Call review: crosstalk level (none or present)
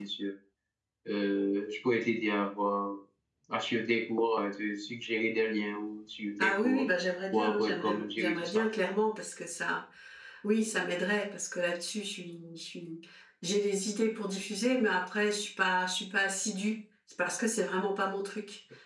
present